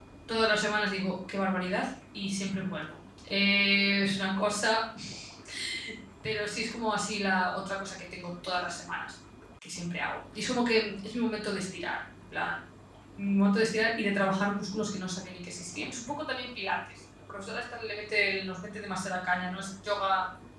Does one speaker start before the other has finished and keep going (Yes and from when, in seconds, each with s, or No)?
No